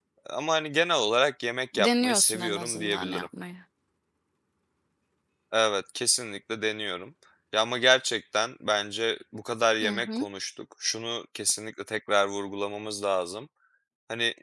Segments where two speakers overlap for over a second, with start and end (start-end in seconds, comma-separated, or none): 1.8-3.3